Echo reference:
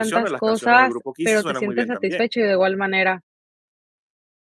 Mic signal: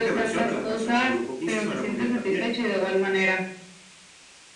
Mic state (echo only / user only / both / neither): echo only